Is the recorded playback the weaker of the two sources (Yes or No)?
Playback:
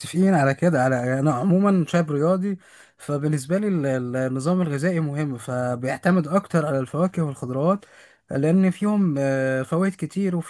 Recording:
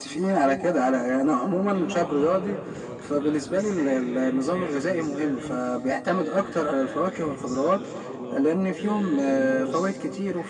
No